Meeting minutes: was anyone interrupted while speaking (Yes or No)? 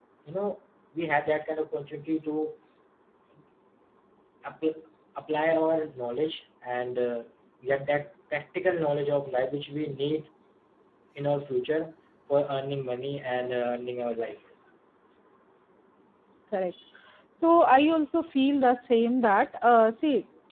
No